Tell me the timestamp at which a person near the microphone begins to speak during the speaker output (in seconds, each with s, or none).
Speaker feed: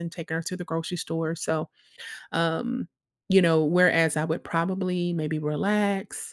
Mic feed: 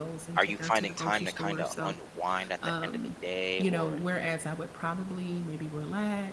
0.4 s